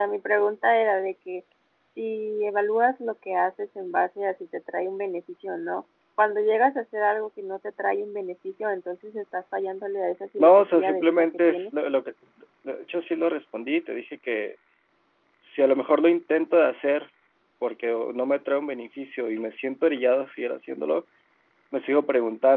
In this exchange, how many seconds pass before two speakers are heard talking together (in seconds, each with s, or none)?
10.4 s